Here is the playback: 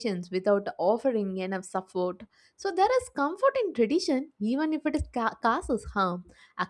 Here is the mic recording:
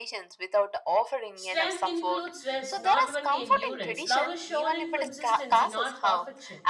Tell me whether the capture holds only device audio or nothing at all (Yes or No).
No